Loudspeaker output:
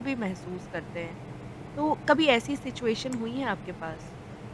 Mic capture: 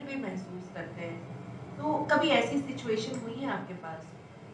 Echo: present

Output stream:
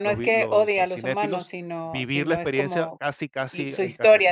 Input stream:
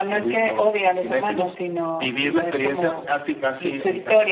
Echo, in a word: present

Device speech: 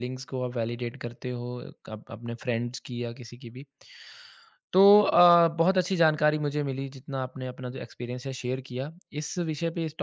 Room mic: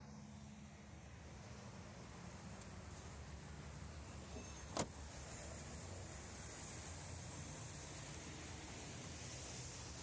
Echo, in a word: none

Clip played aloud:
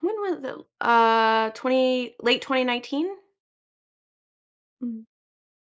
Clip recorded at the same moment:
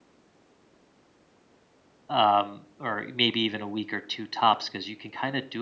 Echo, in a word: none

